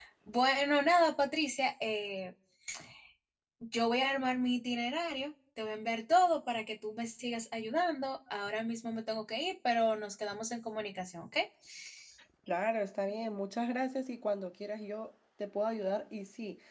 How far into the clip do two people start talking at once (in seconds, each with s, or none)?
none